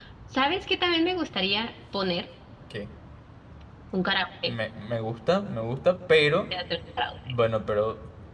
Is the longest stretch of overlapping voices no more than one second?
Yes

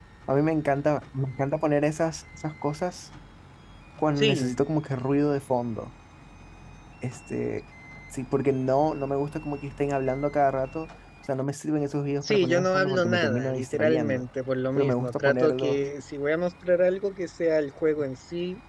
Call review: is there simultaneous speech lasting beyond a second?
Yes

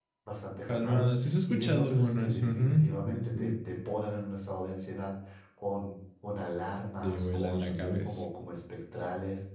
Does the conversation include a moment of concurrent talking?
Yes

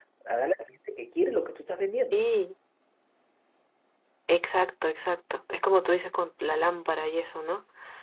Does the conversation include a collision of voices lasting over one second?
No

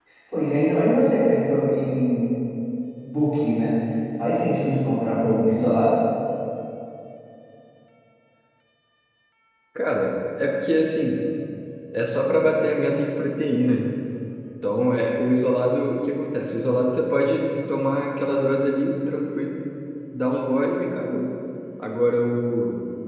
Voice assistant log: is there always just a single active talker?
Yes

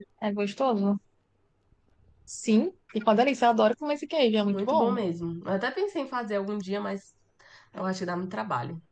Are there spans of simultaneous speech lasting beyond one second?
No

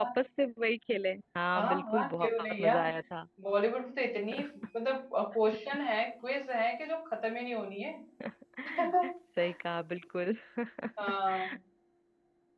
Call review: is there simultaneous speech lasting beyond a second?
Yes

